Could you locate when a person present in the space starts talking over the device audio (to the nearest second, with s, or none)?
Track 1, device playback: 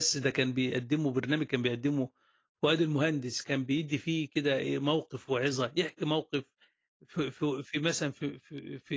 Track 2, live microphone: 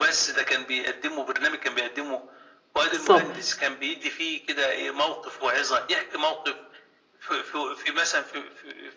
3 s